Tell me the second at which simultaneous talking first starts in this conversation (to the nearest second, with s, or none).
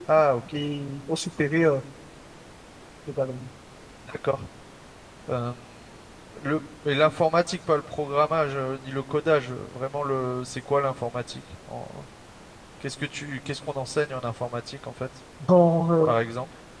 none